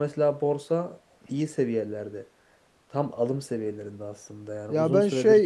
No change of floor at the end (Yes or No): No